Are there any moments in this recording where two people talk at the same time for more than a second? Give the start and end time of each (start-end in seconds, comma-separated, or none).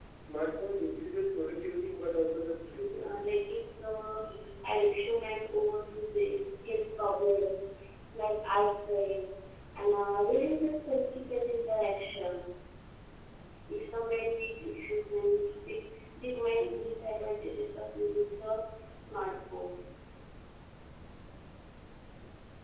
none